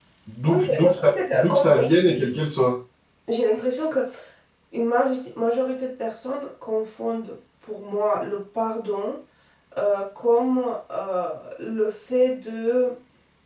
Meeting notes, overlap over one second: present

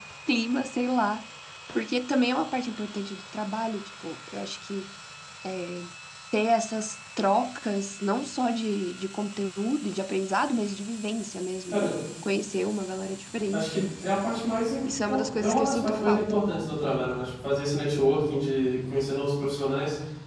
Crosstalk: present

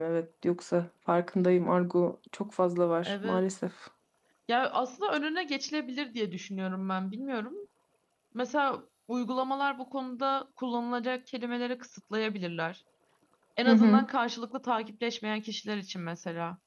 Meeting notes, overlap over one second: none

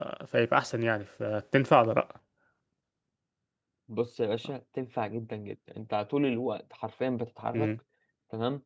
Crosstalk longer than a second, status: none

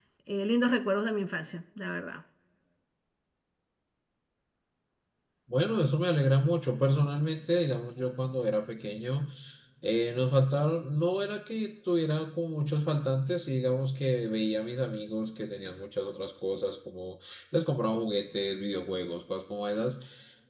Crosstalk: none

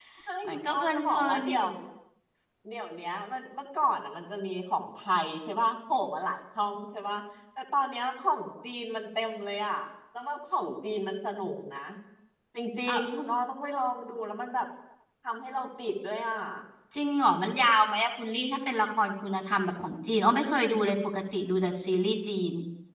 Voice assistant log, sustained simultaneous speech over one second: present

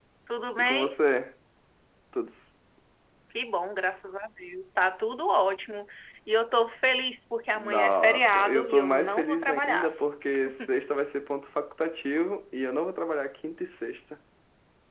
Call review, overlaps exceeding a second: present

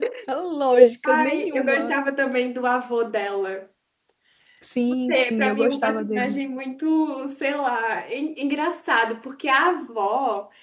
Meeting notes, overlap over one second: present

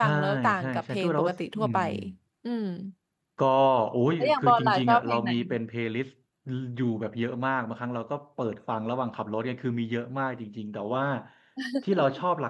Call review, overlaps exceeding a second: present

